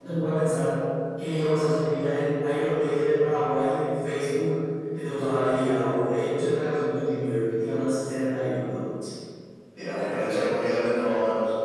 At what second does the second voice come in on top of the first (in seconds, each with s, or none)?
none